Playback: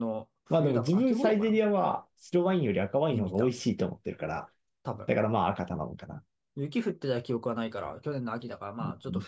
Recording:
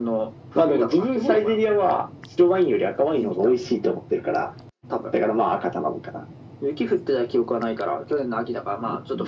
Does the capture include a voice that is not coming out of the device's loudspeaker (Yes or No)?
No